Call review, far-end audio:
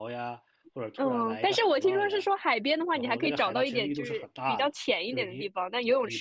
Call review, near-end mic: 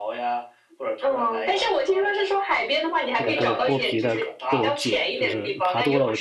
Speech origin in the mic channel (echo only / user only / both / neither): both